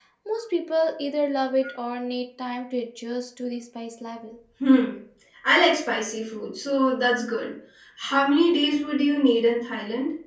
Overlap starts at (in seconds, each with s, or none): none